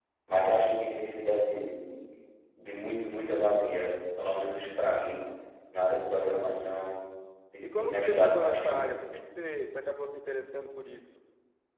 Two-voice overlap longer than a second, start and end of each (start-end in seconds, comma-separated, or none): 7.6-8.9